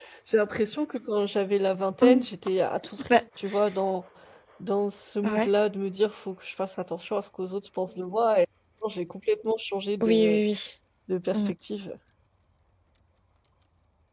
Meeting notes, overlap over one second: none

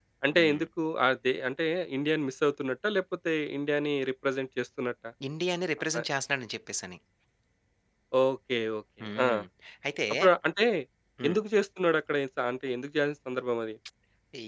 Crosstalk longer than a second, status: none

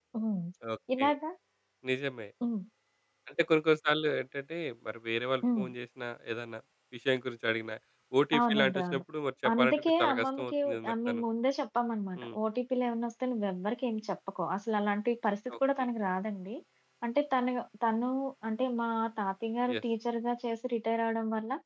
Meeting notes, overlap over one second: present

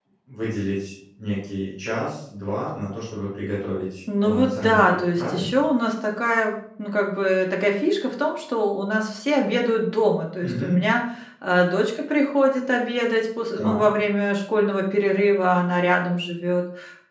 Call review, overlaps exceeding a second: present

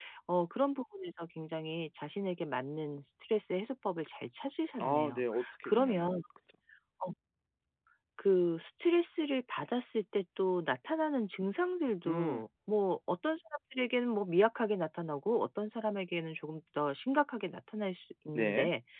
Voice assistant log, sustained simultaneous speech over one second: present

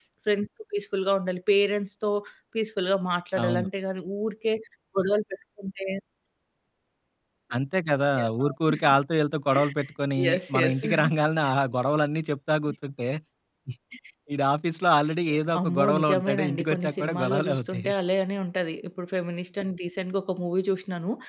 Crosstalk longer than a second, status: present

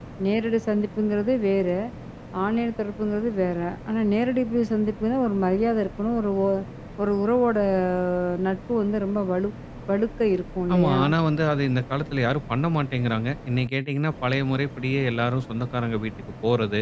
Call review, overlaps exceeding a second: none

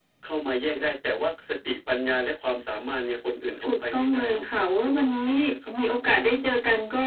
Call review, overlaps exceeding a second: present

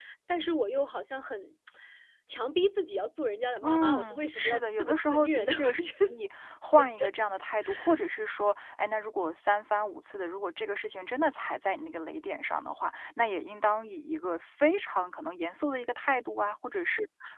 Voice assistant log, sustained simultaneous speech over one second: present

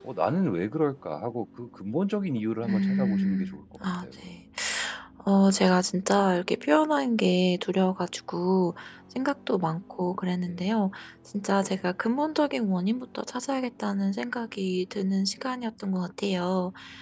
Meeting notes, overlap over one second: present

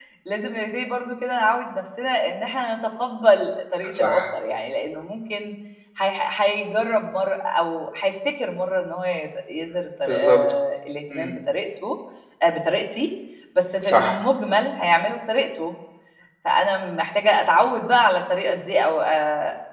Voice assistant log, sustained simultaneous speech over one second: none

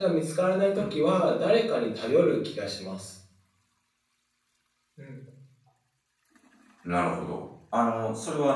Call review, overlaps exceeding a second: none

